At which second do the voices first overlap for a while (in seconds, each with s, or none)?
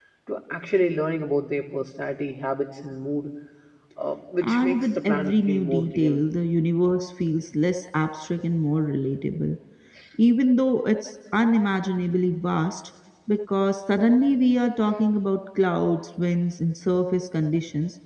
4.4 s